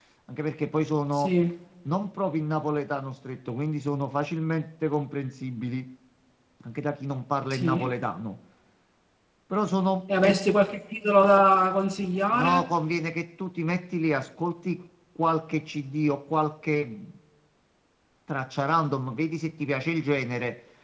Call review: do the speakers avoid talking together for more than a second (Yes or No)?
Yes